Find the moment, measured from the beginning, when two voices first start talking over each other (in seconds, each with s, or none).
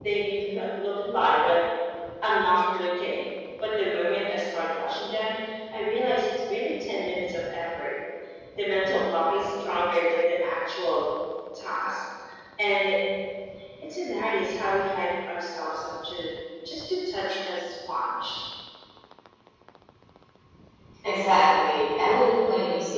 none